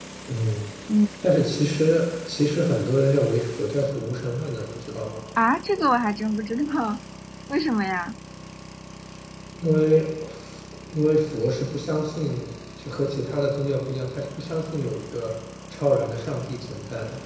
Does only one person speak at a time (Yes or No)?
Yes